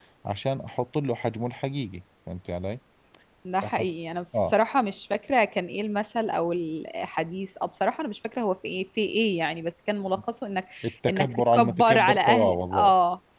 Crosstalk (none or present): present